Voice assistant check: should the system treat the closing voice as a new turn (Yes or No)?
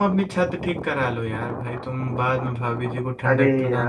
Yes